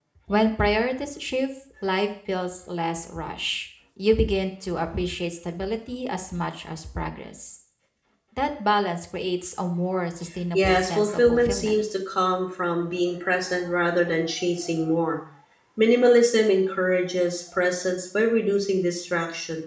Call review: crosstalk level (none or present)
present